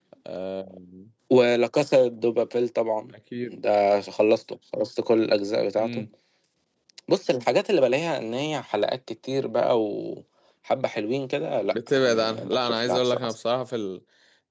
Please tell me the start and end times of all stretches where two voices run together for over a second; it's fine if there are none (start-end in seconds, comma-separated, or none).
11.7-13.3